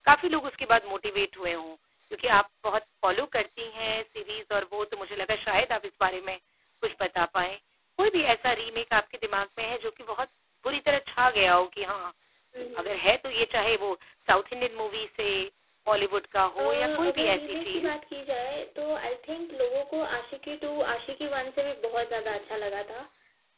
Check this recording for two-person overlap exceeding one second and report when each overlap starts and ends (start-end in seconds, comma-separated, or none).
16.6-18.0